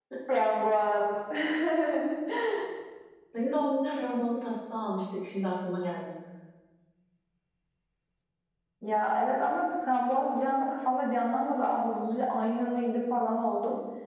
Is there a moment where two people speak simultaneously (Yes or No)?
No